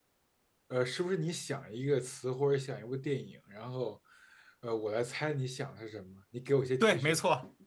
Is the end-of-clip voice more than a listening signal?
Yes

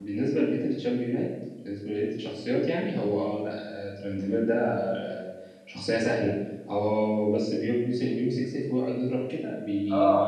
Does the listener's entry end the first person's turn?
Yes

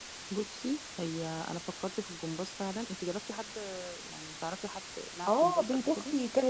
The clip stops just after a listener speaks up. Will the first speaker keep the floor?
No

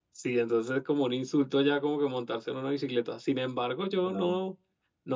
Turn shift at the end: No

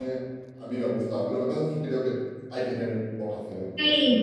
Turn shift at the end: Yes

